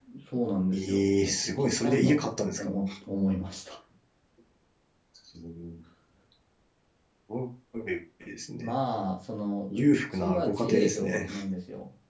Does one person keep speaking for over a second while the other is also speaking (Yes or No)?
Yes